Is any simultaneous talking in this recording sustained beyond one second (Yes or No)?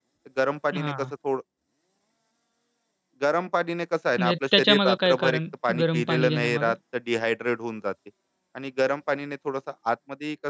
Yes